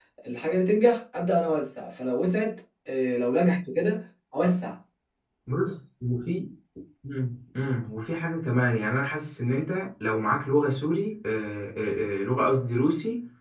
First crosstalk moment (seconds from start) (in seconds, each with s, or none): none